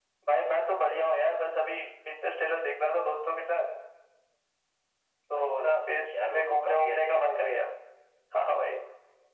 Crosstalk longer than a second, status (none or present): present